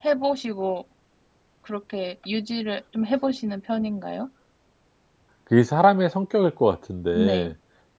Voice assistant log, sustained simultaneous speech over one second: none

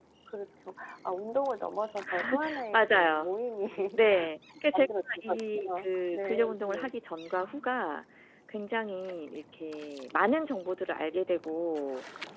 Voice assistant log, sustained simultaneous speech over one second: present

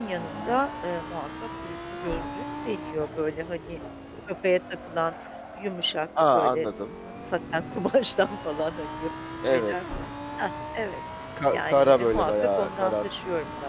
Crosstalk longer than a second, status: present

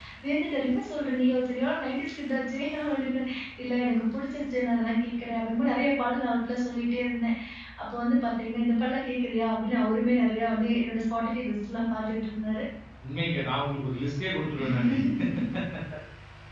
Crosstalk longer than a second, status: none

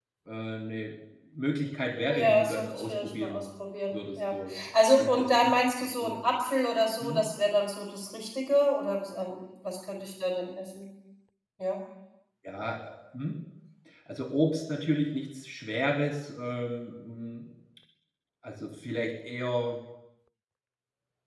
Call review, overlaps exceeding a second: present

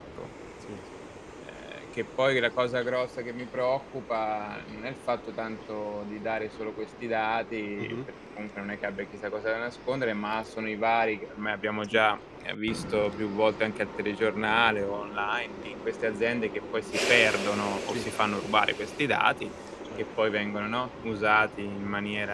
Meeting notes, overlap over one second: none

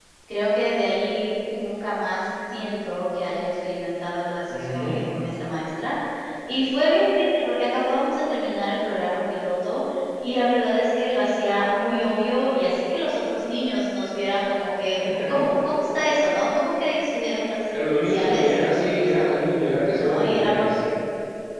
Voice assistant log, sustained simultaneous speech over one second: present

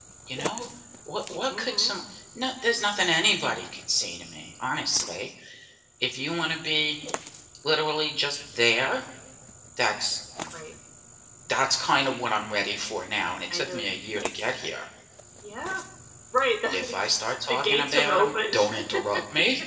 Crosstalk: present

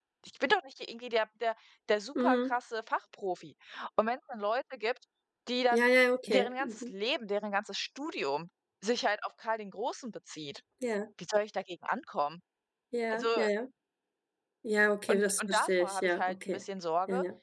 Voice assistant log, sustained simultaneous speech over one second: present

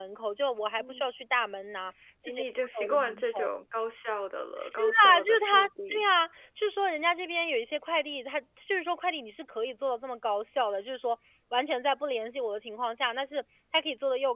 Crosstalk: present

